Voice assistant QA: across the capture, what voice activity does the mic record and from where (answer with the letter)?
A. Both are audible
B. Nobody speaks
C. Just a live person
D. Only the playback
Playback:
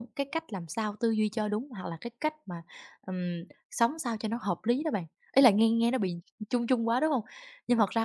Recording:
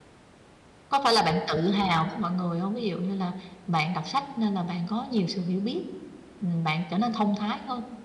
C